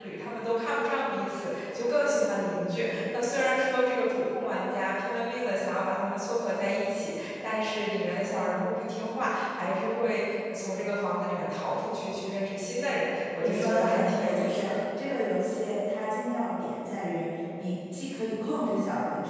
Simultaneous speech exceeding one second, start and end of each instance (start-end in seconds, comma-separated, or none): 13.4-14.7